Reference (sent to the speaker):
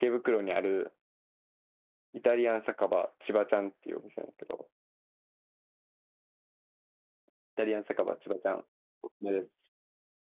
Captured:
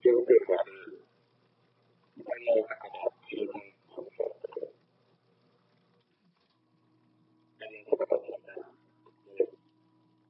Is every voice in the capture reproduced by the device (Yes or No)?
Yes